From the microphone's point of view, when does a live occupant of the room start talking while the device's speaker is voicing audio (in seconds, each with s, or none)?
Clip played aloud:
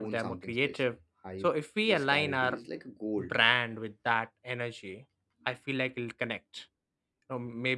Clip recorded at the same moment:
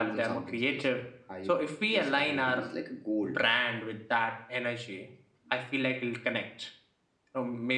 none